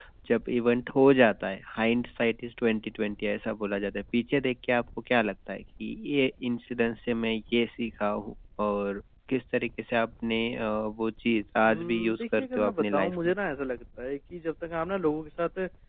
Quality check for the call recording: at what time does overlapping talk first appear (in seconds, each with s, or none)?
11.6 s